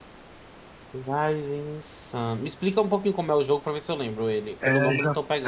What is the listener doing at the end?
taking over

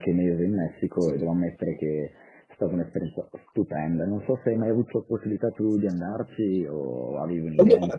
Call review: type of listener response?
taking over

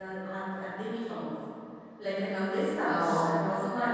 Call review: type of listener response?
listening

